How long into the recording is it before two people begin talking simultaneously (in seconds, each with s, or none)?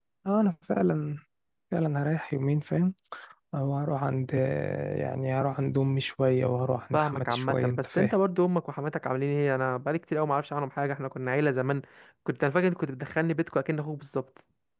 6.9 s